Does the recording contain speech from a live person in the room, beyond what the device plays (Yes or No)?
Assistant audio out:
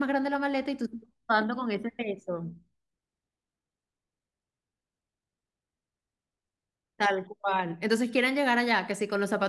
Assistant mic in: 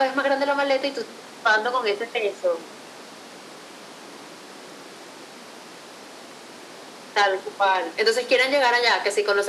No